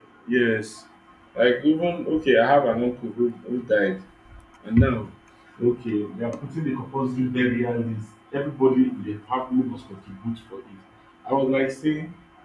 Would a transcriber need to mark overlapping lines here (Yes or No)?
No